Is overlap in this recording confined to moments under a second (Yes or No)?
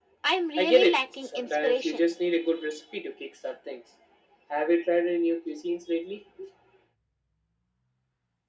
No